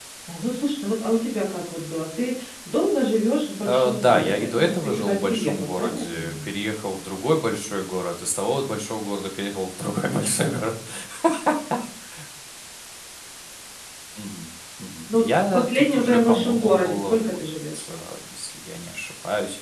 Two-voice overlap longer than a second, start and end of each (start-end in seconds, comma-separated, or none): 3.7-6.5, 15.1-17.4